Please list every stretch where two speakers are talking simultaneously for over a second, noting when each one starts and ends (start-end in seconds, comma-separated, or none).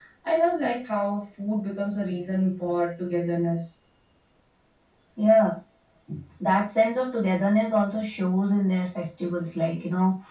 none